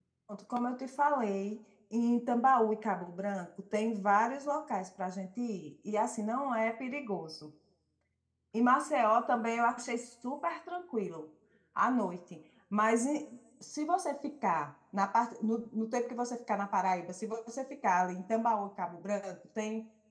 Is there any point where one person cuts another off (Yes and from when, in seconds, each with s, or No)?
No